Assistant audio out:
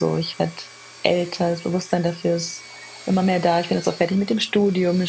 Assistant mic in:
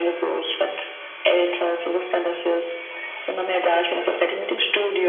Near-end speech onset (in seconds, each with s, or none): 3.6 s